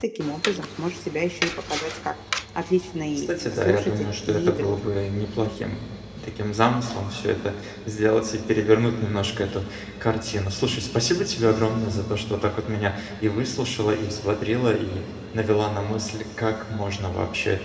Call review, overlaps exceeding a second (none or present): present